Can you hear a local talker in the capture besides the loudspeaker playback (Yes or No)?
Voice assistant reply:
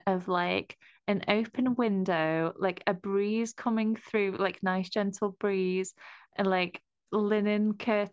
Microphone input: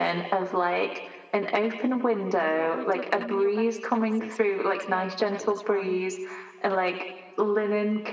Yes